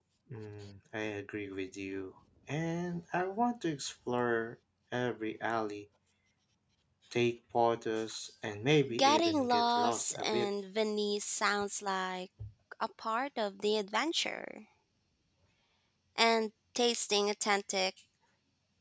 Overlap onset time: 8.9 s

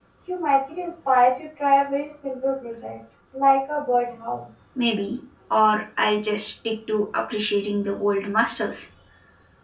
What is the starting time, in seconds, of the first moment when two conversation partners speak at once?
none

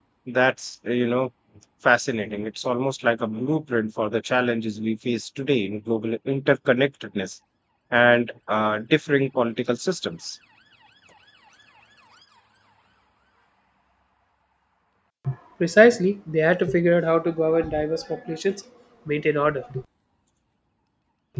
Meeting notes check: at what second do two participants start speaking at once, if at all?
none

